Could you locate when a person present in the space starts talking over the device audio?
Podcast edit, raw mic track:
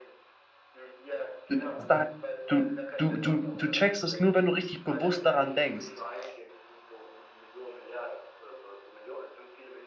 1.5 s

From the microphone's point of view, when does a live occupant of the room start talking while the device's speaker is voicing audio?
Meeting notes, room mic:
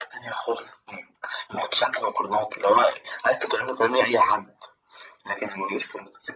none

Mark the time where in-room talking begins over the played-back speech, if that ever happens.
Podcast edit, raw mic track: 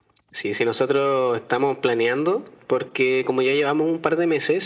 none

